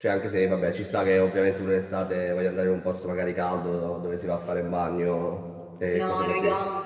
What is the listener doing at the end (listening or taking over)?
taking over